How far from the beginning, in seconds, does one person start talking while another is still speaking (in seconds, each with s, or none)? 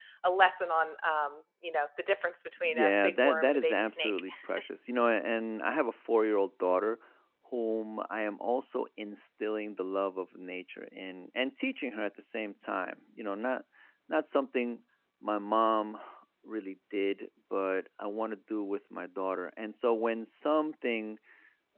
2.6 s